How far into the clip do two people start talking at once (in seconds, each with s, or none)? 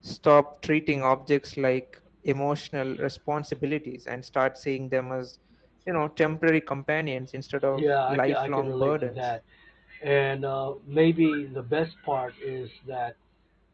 7.7 s